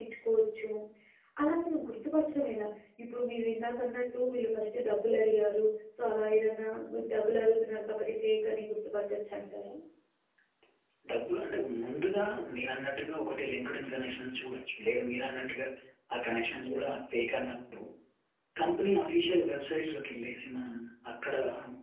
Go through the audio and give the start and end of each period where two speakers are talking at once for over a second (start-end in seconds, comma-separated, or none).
none